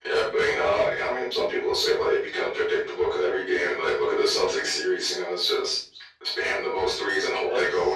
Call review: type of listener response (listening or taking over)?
taking over